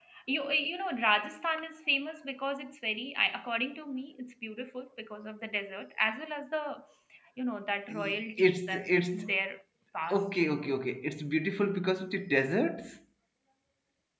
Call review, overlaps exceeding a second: present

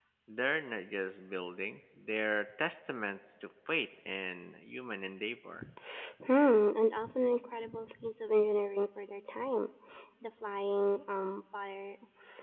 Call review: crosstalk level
none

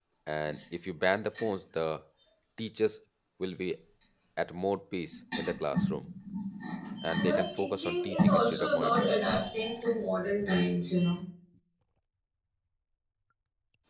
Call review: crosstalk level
present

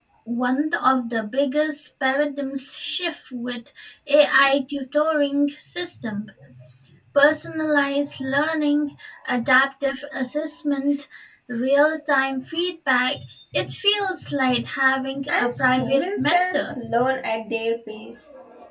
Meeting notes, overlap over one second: present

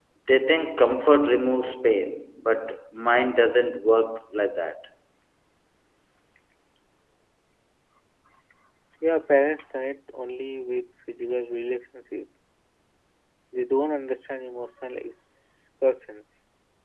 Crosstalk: none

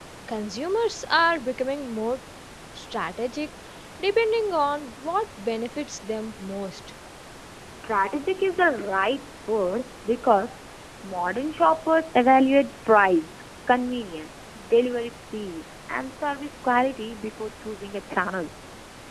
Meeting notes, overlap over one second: none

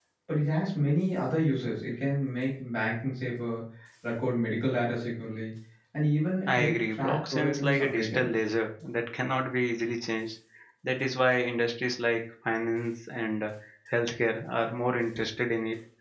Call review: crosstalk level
present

